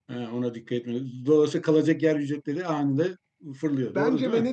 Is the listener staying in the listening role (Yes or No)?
No